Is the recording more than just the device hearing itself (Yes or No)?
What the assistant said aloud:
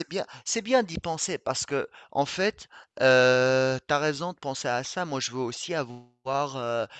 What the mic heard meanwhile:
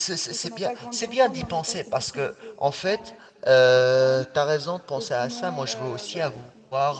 Yes